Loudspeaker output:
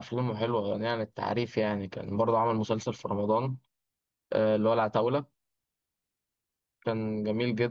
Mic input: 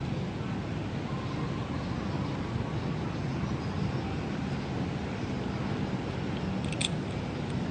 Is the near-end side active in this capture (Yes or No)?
No